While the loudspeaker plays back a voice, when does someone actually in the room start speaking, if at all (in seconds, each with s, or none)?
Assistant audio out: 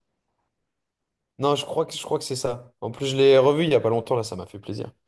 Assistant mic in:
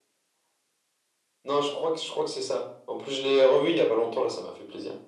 none